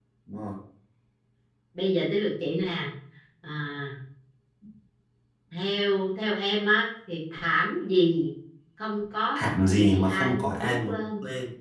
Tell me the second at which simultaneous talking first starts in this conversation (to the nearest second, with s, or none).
9 s